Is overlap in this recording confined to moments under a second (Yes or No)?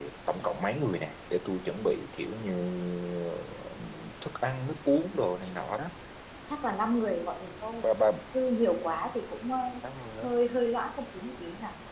Yes